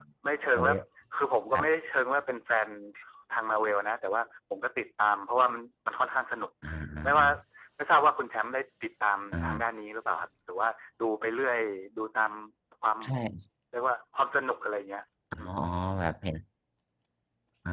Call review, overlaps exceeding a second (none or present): none